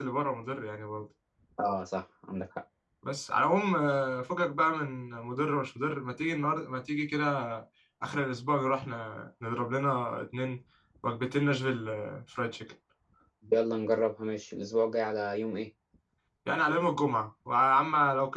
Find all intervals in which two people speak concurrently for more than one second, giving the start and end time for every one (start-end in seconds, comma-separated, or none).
none